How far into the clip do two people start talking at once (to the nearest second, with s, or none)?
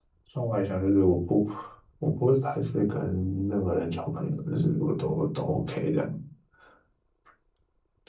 none